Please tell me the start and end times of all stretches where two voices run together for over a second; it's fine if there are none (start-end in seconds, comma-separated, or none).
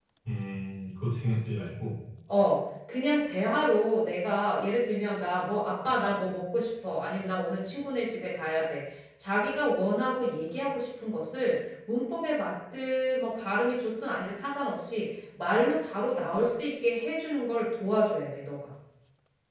none